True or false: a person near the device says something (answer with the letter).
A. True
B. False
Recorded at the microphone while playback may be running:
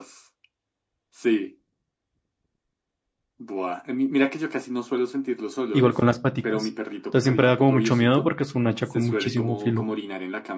A